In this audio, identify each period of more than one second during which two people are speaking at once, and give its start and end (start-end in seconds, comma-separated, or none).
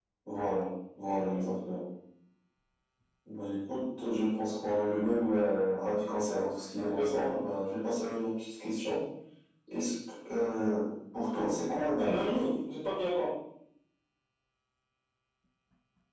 none